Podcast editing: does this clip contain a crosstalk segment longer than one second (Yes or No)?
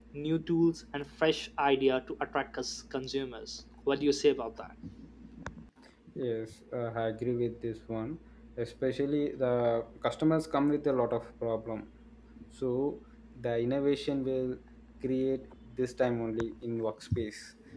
No